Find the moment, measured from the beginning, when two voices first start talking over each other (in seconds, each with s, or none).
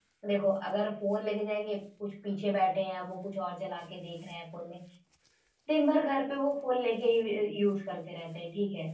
none